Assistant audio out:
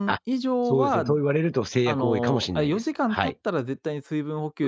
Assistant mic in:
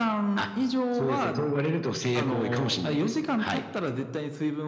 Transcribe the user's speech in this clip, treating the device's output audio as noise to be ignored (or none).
none